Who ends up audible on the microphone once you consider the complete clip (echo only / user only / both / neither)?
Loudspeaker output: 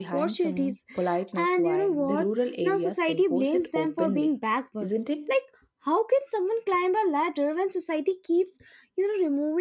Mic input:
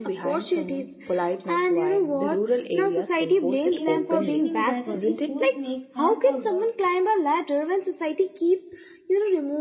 both